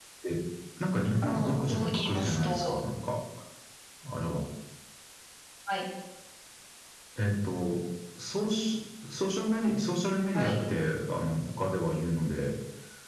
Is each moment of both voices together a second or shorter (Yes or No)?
No